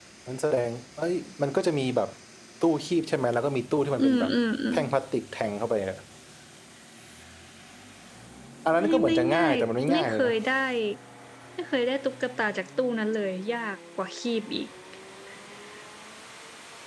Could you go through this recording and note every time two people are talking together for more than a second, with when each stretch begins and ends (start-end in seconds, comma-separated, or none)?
8.8-10.3